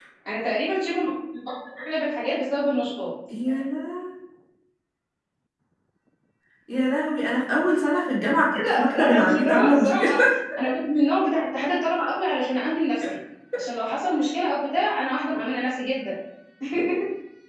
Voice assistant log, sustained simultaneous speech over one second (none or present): present